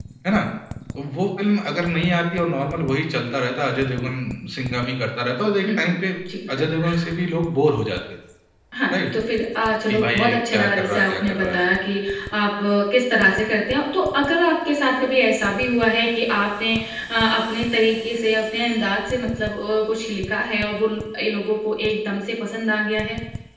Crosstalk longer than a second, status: present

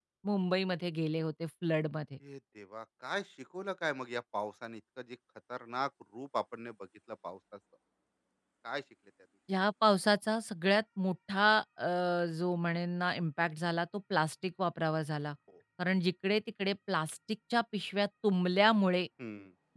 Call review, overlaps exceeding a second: none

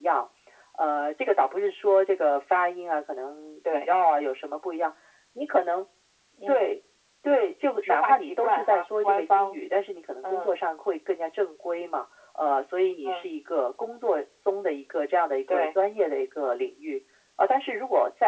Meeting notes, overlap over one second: present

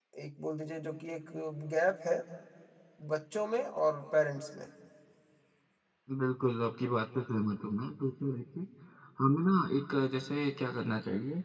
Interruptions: none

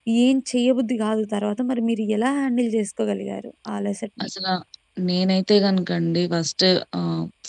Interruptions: none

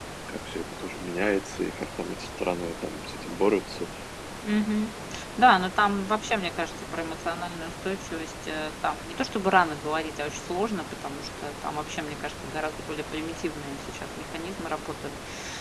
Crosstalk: none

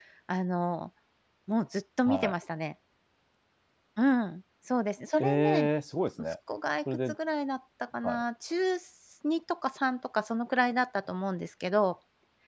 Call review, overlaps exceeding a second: none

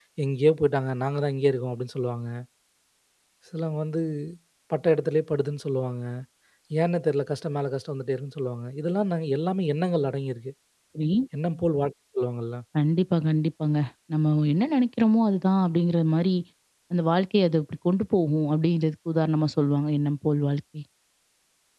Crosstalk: none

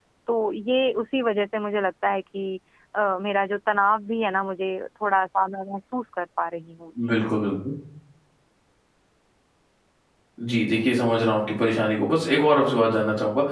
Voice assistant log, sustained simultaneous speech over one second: none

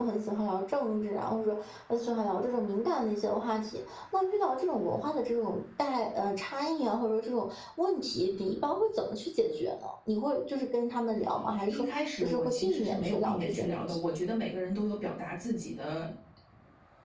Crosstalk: present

